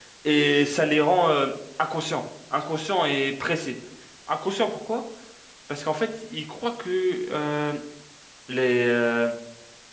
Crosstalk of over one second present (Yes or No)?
No